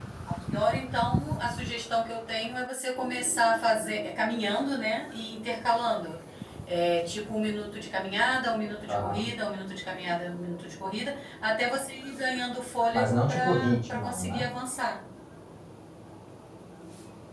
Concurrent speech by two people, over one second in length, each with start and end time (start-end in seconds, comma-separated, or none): 12.9-14.5